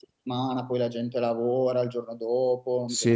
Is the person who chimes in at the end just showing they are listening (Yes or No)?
No